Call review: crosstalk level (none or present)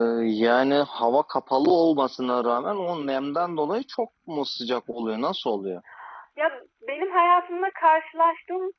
none